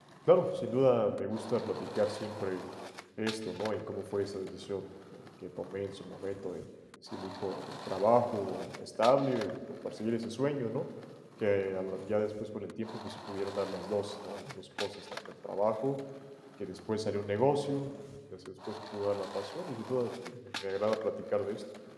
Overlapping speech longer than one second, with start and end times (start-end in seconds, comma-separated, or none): none